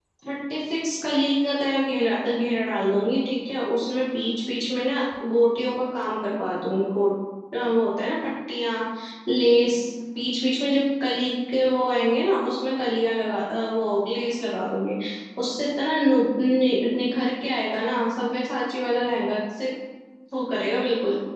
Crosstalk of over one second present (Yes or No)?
No